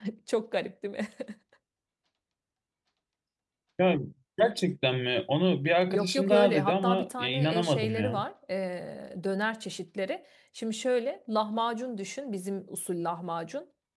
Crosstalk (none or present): present